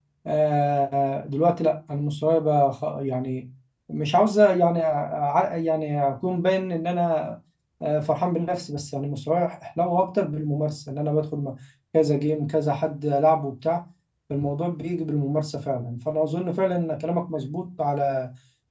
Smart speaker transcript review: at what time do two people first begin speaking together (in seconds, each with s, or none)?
none